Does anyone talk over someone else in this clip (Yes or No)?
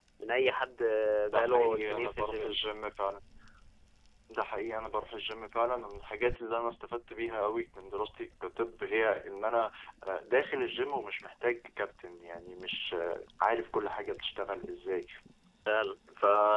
Yes